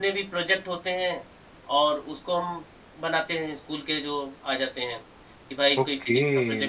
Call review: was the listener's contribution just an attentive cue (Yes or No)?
No